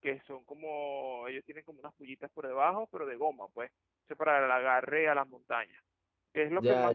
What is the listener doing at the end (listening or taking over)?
listening